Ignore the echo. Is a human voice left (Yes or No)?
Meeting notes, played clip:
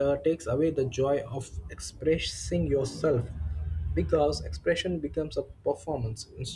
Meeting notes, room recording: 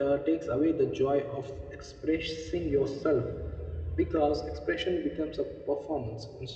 No